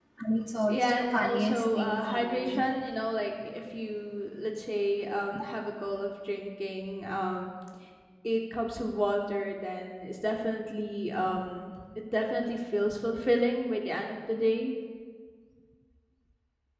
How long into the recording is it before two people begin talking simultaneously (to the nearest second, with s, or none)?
1 s